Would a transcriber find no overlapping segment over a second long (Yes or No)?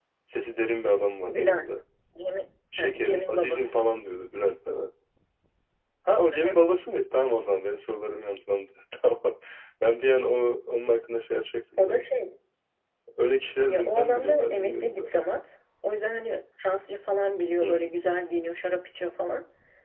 No